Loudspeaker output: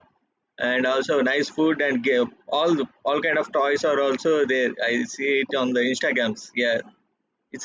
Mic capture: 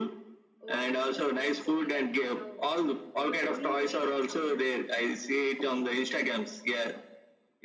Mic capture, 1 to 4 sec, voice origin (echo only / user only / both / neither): both